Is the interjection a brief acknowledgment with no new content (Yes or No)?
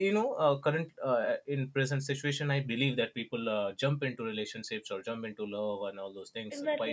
No